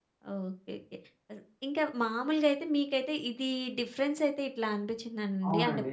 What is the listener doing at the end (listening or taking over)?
listening